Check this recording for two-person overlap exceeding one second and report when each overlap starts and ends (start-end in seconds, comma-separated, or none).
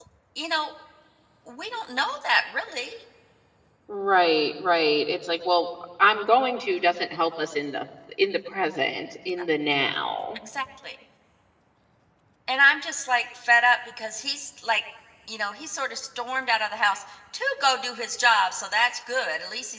none